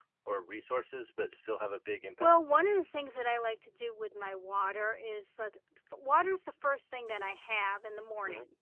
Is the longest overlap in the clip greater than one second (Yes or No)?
No